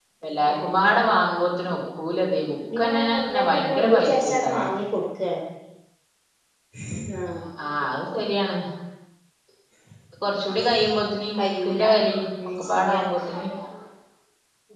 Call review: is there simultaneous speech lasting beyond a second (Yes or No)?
Yes